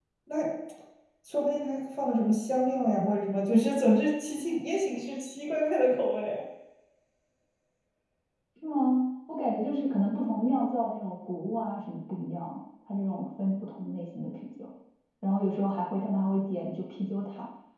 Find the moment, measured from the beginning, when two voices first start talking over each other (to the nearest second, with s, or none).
none